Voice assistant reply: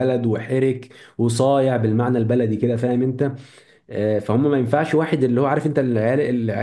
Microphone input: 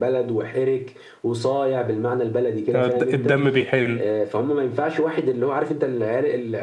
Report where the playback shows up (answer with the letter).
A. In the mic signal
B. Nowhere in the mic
A